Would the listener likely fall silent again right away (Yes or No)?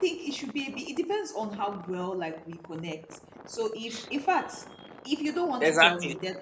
No